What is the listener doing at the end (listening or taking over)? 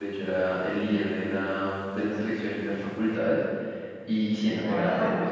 listening